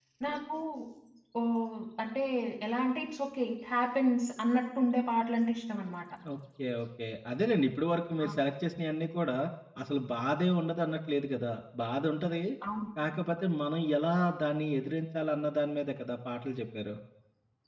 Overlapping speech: No

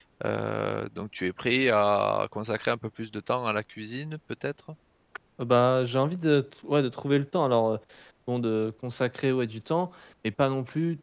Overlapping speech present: No

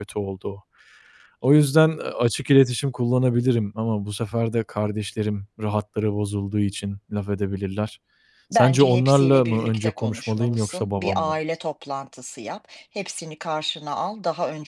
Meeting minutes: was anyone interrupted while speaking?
Yes, from 8.5 s

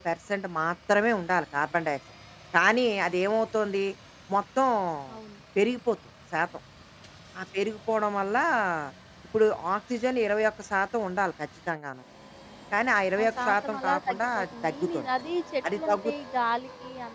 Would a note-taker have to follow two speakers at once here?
Yes, from 13.2 s

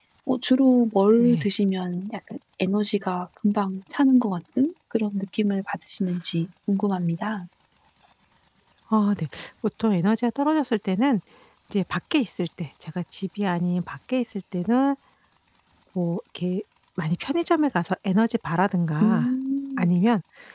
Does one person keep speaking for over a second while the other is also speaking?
No

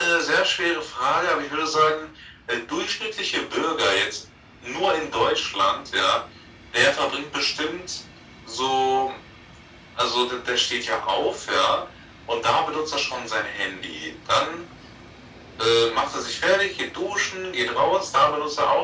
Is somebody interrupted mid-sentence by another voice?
No

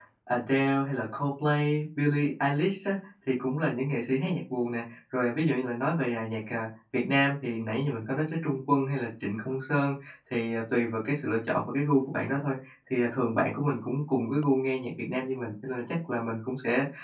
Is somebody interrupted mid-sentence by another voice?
No

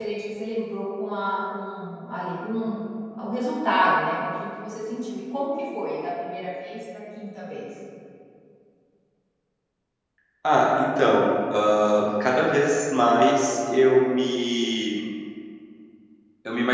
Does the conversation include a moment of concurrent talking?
No

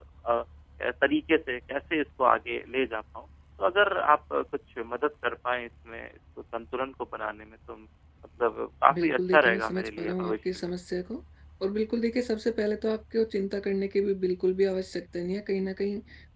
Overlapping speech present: Yes, from 8.9 s

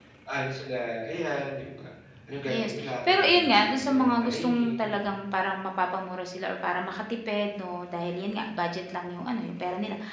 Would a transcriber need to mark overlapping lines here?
Yes, from 2.5 s

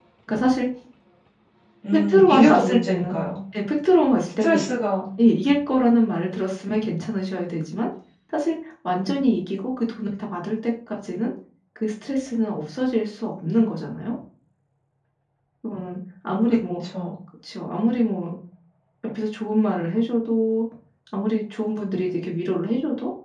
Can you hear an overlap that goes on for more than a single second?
Yes, from 1.9 s

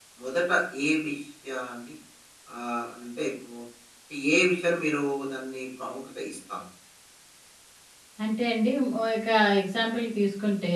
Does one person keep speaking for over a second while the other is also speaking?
No

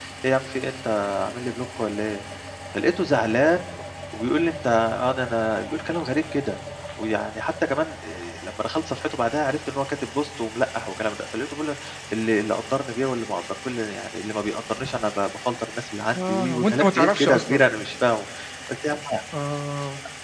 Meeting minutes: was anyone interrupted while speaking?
Yes, from 16.1 s

